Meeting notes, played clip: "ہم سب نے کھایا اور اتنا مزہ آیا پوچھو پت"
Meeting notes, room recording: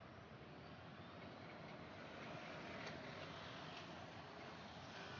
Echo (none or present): none